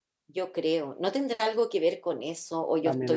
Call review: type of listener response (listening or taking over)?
taking over